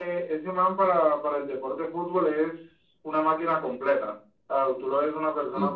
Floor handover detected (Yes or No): No